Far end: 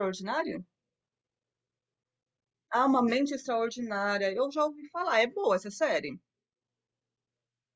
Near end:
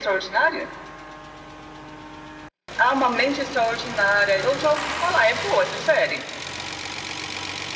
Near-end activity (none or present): none